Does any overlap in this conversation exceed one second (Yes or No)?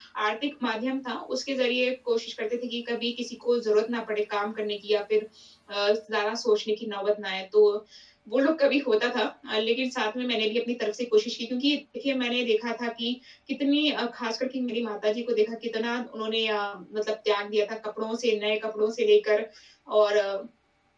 No